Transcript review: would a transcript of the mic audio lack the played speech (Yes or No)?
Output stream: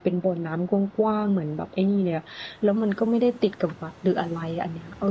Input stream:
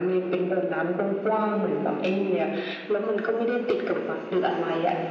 No